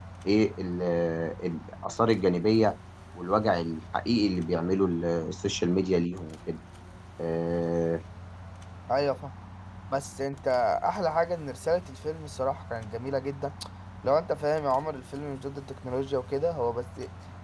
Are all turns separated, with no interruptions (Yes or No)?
Yes